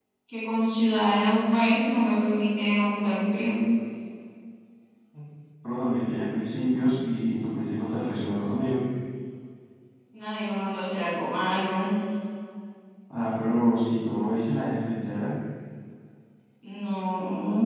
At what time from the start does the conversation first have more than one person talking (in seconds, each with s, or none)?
none